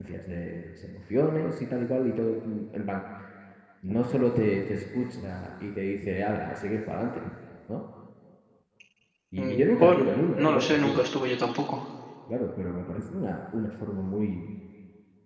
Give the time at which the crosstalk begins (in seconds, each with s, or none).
9.4 s